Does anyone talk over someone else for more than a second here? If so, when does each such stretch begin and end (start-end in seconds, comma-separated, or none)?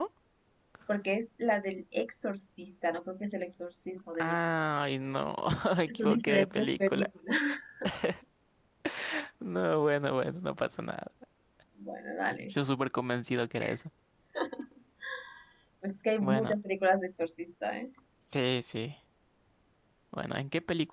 5.9-7.1